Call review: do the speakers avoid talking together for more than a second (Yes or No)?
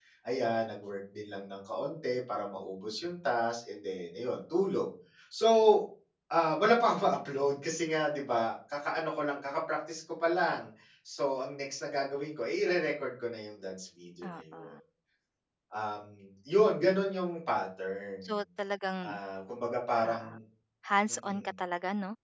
Yes